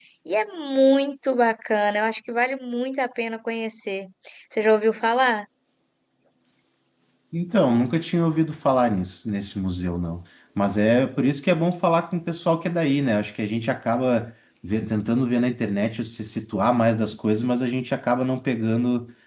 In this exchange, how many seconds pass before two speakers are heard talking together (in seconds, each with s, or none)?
none